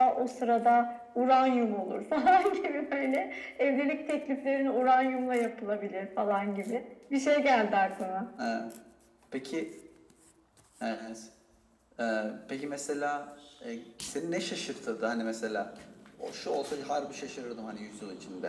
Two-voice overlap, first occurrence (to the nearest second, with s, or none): none